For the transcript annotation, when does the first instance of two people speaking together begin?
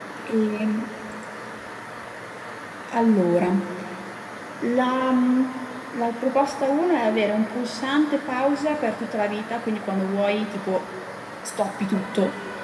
none

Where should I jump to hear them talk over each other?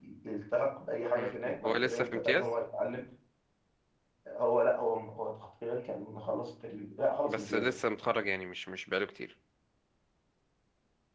1.2 s

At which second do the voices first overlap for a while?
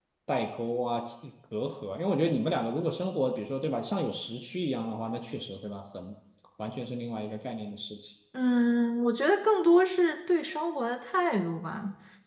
none

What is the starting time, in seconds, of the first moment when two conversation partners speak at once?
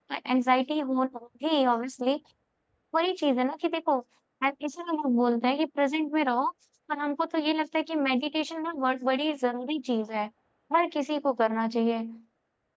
none

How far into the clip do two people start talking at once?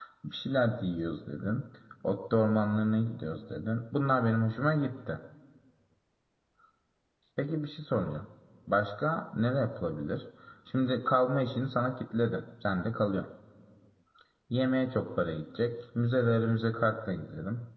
none

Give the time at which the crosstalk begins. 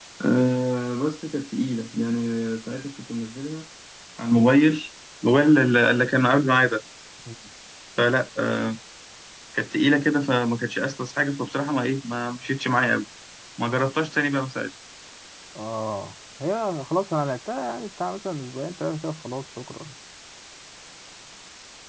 none

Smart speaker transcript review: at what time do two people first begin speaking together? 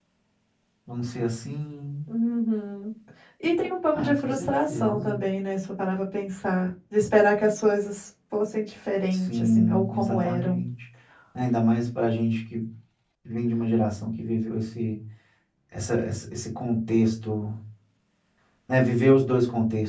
3.9 s

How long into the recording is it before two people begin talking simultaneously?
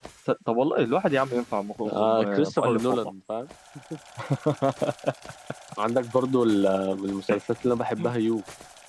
1.8 s

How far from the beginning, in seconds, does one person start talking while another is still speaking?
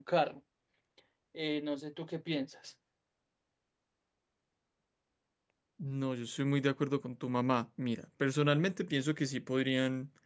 none

